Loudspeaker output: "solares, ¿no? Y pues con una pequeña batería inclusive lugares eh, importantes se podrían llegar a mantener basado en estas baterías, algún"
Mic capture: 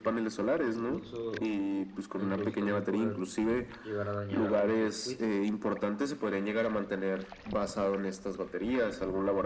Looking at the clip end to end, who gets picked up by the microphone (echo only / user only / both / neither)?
both